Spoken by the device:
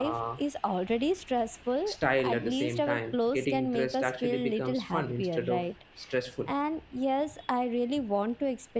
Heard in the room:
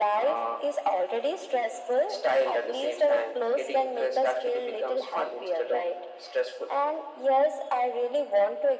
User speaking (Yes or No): No